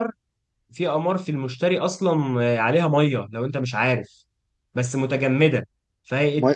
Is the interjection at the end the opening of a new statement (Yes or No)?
Yes